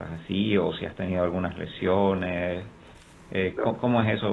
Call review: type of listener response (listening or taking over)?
listening